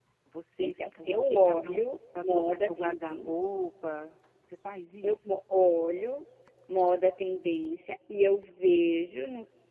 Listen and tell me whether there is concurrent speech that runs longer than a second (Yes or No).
Yes